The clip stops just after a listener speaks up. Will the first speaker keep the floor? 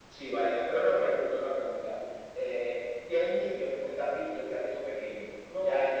No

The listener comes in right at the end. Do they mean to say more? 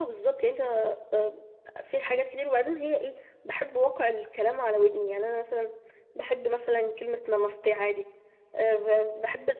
No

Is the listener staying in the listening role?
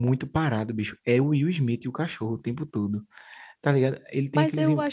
No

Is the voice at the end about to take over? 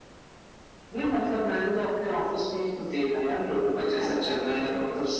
No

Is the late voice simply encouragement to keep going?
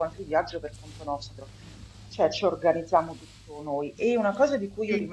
Yes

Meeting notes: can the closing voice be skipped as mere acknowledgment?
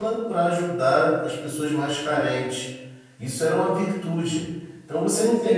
Yes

